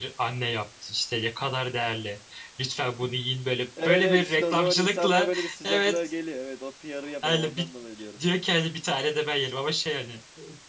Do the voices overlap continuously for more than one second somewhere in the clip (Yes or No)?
Yes